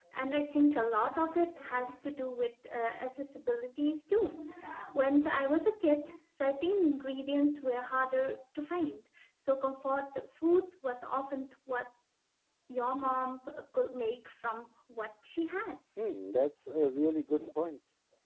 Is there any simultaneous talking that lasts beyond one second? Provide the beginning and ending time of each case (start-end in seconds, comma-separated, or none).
none